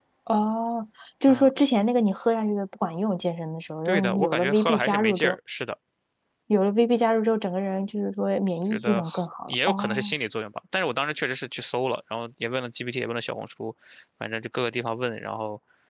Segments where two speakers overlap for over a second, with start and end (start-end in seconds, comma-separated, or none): 3.9-5.4, 8.7-10.1